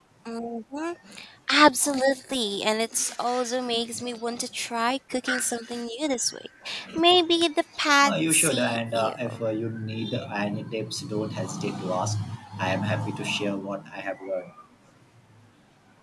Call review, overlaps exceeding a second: present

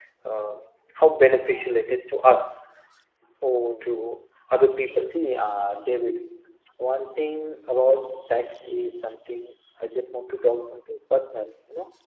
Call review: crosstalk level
none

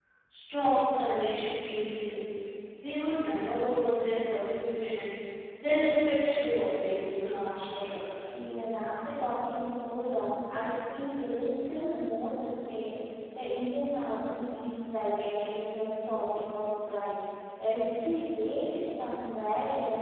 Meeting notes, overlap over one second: none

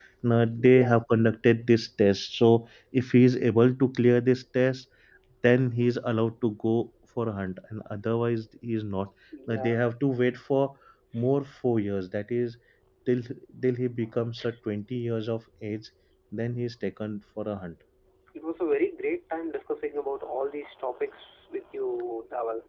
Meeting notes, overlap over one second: none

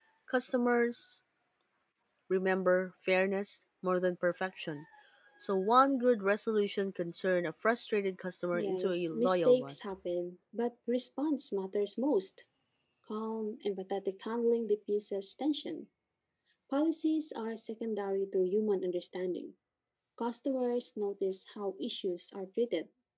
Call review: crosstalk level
present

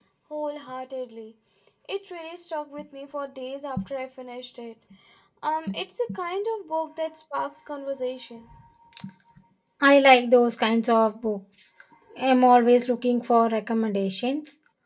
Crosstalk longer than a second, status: none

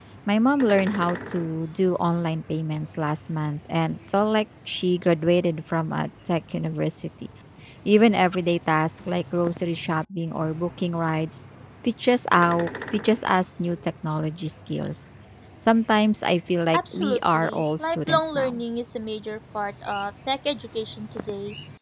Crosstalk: present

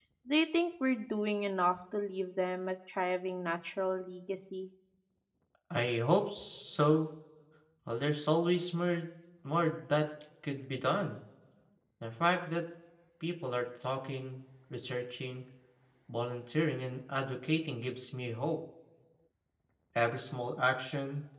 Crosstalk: none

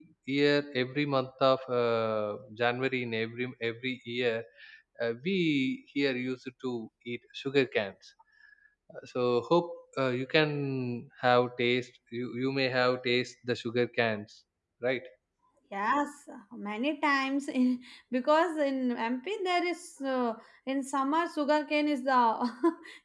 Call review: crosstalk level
none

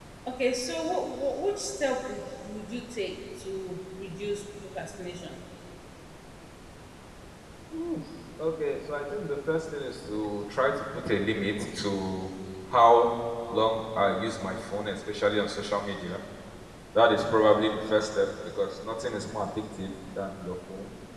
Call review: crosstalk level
none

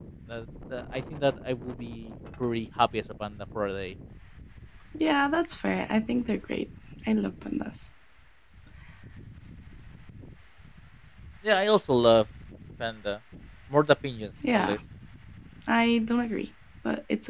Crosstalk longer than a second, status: none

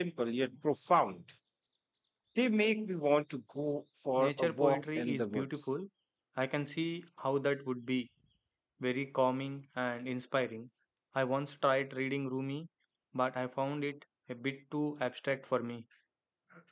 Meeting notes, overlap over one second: present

